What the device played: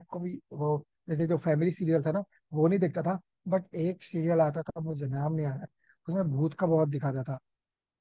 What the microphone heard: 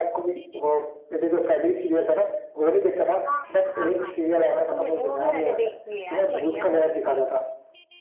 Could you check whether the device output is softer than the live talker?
No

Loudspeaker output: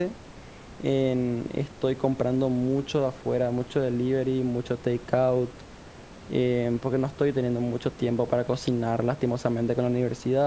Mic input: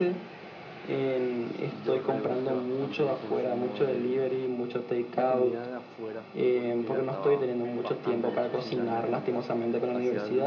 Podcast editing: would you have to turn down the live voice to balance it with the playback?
No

